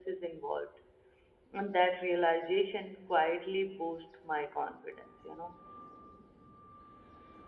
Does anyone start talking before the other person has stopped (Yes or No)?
No